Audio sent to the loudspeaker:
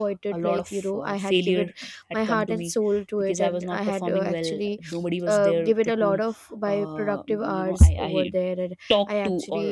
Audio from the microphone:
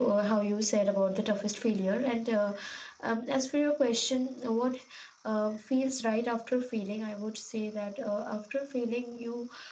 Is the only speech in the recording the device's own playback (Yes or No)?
No